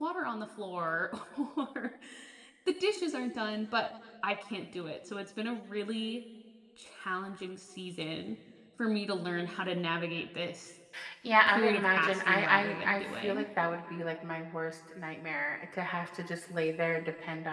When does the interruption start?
11 s

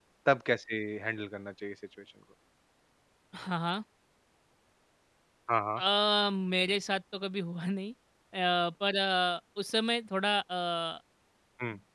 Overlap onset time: none

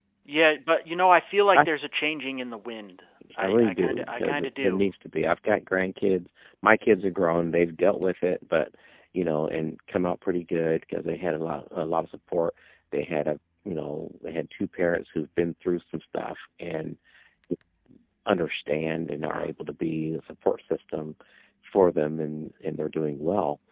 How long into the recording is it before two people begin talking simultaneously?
3 s

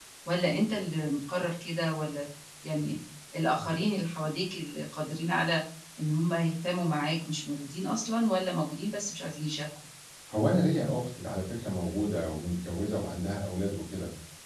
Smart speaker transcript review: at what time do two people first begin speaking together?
none

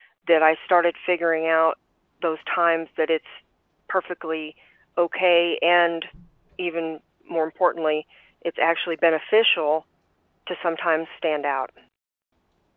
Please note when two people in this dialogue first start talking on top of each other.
none

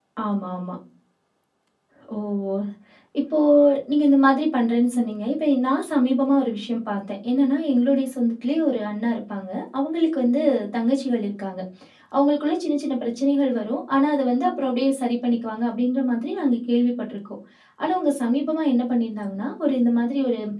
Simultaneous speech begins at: none

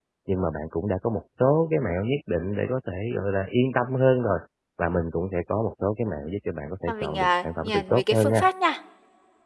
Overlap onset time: 7 s

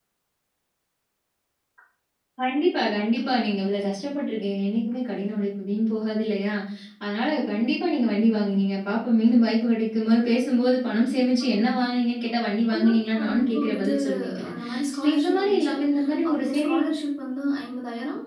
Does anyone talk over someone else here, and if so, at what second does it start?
13 s

